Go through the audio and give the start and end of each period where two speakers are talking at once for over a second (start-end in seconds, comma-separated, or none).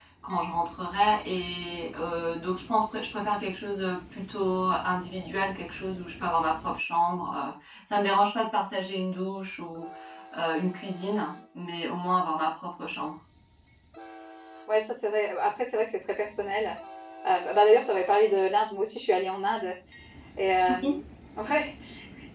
none